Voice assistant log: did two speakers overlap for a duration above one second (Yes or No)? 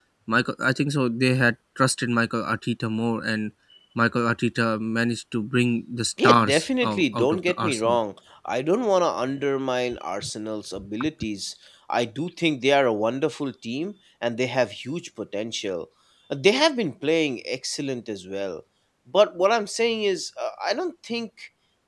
Yes